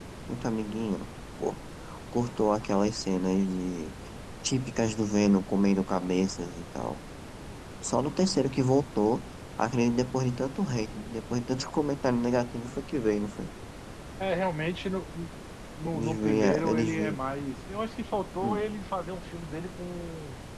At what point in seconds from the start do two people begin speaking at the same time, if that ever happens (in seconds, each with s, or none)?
15.9 s